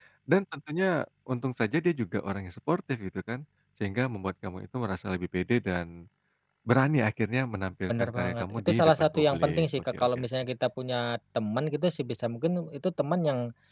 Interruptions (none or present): present